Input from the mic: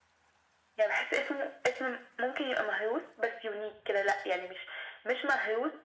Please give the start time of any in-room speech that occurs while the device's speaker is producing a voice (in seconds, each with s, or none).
none